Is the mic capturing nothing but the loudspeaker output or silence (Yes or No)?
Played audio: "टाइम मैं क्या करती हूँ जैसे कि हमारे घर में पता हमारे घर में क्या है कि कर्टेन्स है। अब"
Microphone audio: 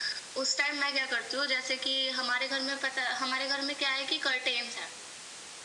Yes